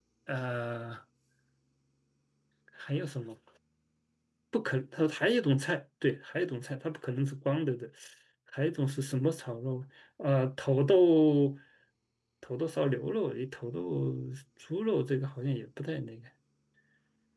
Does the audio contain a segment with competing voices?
No

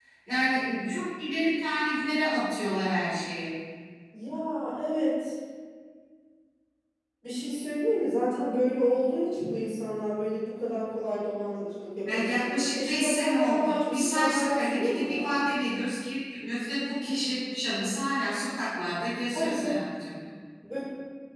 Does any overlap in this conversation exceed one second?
Yes, from 12.1 s

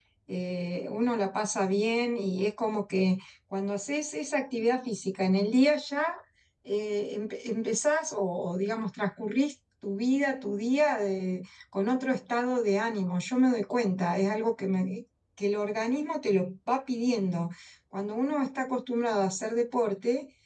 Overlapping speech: No

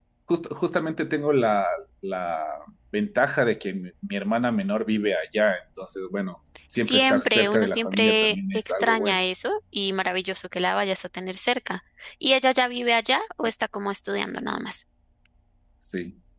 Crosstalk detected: Yes, from 6.8 s

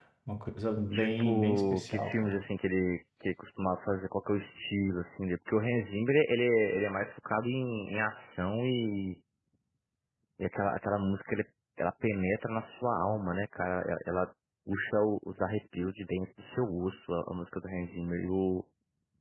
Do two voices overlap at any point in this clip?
Yes, from 0.9 s

